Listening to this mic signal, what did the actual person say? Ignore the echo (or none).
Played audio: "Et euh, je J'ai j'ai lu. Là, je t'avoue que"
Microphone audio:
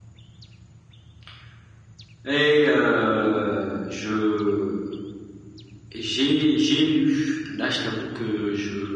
none